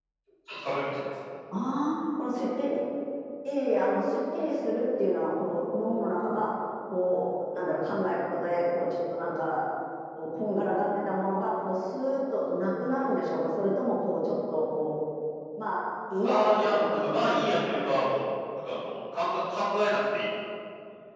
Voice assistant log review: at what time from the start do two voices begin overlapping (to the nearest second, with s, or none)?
16 s